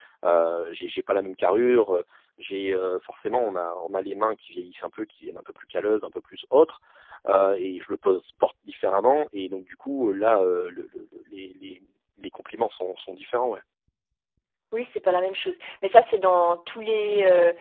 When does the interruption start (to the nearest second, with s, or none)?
none